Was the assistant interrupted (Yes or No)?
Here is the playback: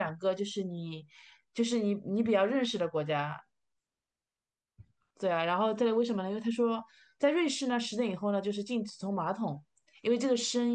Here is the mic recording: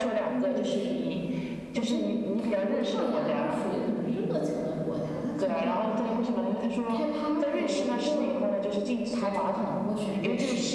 Yes